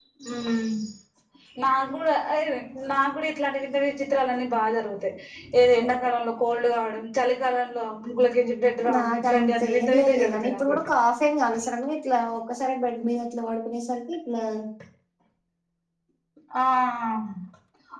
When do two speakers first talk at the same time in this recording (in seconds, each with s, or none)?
8.8 s